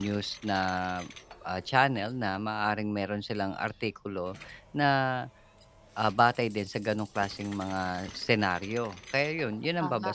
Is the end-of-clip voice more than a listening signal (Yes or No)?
No